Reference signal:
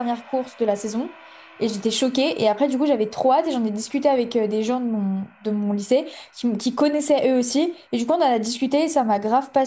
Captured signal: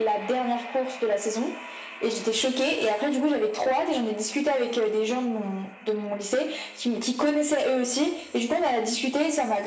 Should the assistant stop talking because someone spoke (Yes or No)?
No